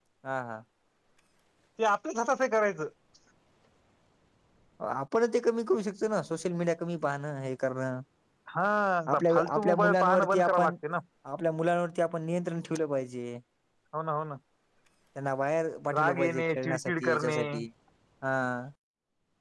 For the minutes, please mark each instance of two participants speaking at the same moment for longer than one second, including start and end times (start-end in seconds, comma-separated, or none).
9.1-10.7, 15.9-17.4